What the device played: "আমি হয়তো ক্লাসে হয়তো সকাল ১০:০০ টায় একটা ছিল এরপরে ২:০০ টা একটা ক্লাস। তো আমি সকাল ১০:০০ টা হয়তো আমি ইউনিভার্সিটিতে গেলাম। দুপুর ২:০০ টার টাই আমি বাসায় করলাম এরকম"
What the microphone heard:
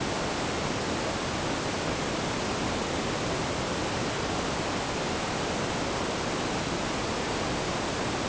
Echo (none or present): none